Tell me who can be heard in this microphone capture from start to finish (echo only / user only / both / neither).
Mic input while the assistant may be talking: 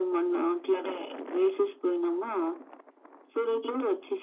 echo only